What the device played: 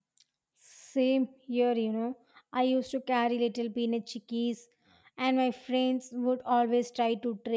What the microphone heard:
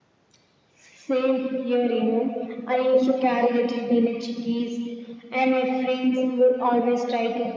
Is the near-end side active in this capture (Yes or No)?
No